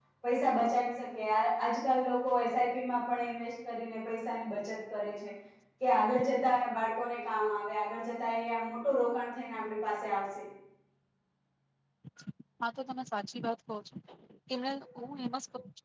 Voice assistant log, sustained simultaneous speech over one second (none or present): none